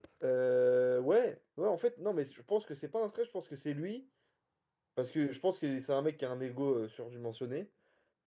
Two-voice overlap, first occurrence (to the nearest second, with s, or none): none